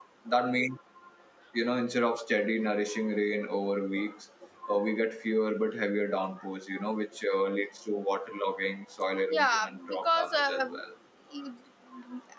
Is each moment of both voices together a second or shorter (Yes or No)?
No